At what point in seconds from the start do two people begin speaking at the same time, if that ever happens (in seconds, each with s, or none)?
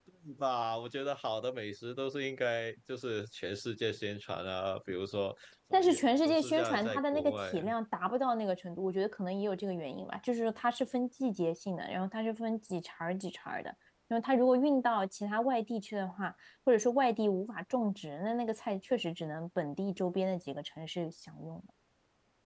5.7 s